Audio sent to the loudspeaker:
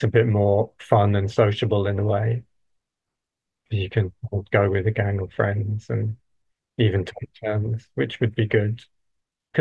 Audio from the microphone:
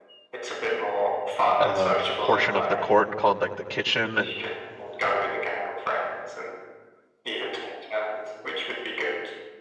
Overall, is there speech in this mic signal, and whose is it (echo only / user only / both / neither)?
both